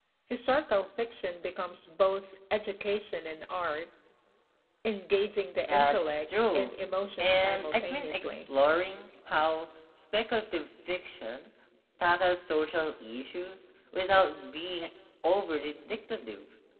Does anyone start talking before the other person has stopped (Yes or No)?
Yes